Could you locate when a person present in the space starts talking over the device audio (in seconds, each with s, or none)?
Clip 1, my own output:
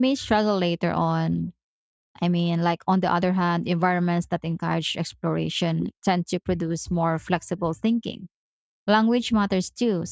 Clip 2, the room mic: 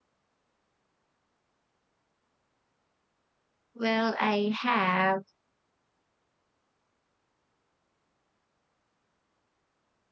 3.7 s